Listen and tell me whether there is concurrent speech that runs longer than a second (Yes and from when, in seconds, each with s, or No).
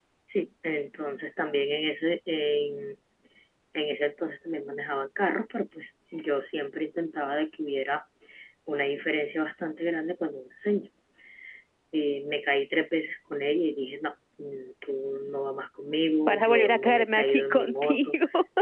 Yes, from 16.3 s